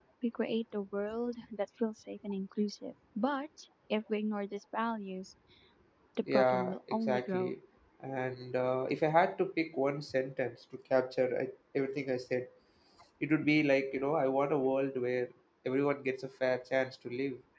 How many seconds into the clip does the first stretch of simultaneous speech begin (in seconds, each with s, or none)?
6.3 s